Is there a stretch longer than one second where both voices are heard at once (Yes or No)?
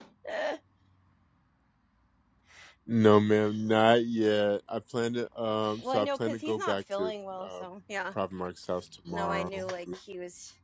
Yes